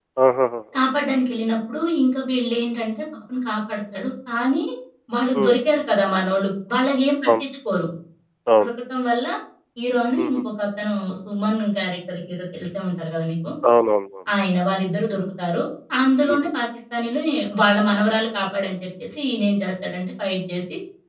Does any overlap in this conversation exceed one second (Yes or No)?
No